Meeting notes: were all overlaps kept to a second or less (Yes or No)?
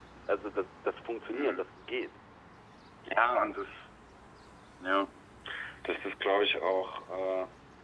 Yes